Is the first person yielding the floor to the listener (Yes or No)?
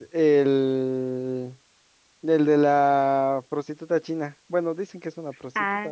Yes